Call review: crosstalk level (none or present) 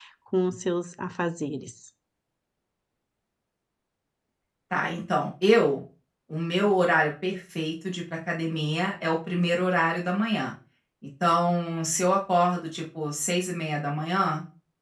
none